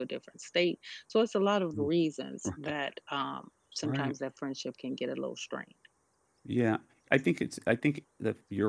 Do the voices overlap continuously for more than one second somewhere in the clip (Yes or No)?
No